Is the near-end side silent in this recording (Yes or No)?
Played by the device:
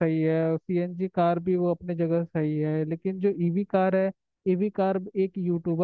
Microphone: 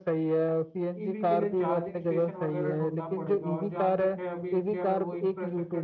No